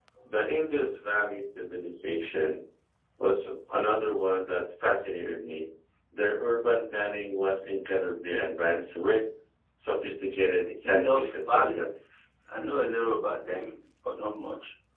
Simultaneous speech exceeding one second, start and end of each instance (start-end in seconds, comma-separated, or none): 10.6-11.9